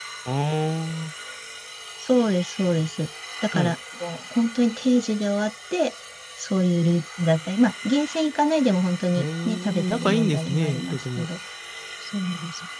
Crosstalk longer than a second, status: present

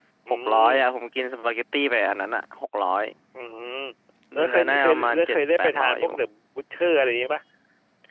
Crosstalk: present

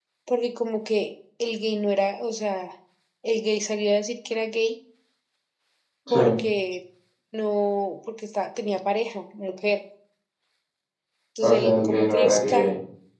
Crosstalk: present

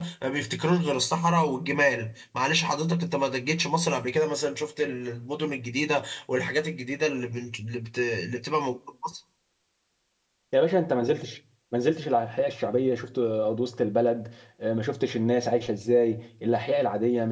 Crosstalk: none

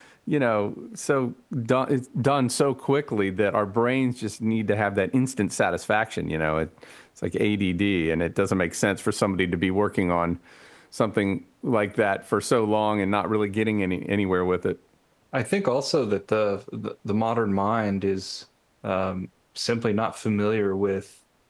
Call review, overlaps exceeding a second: none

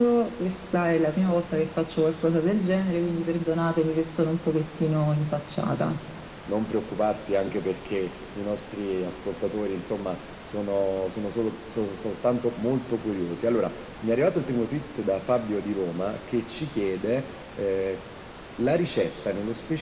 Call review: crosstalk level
none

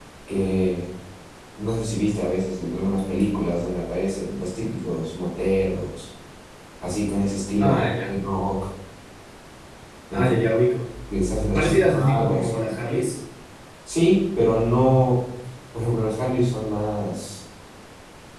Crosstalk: present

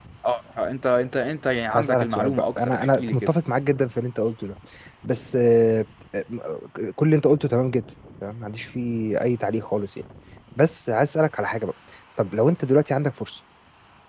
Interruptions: present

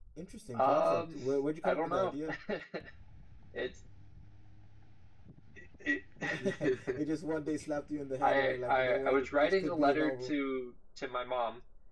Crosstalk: present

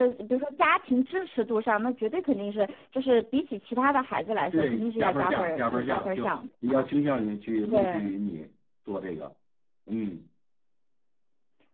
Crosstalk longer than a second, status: present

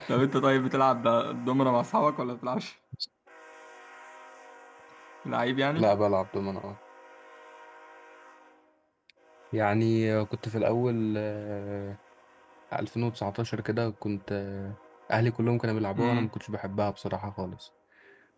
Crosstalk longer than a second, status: none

